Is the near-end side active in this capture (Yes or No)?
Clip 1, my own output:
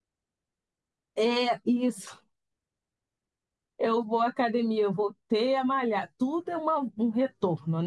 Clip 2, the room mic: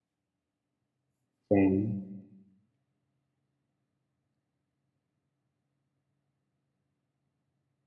Yes